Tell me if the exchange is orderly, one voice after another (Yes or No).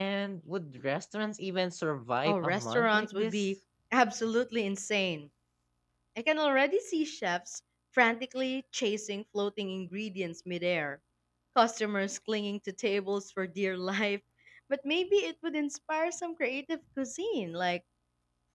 No